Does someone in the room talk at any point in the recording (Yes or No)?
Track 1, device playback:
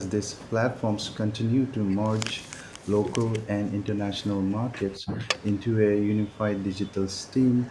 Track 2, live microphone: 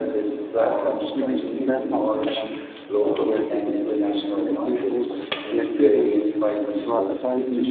Yes